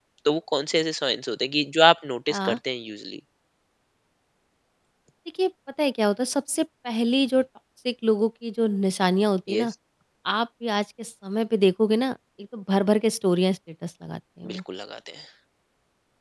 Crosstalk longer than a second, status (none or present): none